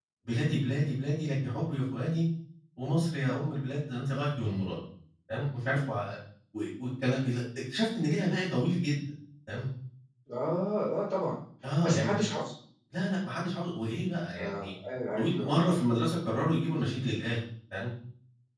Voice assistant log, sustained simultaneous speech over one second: none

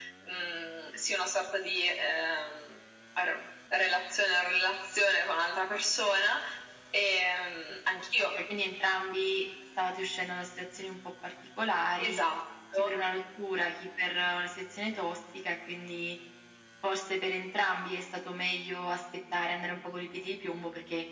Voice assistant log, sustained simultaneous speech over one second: none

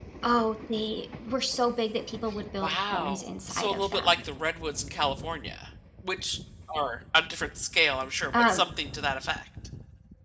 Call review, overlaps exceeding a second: present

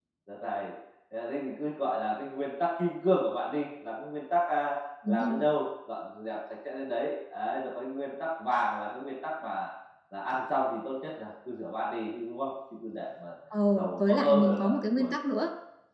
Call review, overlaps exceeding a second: present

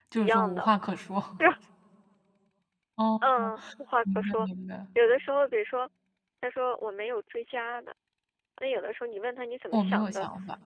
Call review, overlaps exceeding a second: none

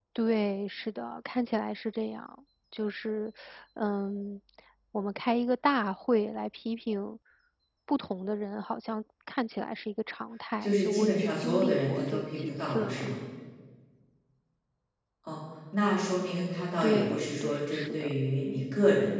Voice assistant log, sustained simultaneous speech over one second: present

